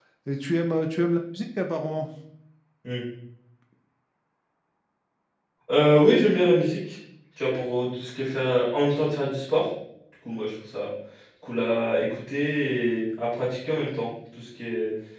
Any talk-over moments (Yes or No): No